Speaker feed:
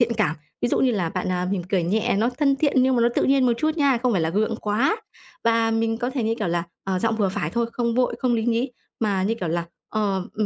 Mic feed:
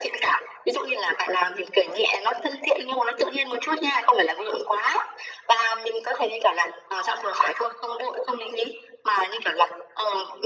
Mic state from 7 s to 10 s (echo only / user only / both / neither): echo only